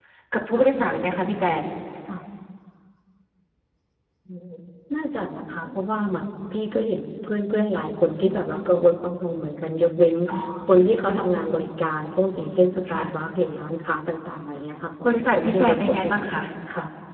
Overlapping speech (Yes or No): Yes